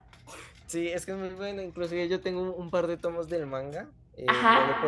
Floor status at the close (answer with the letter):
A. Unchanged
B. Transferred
A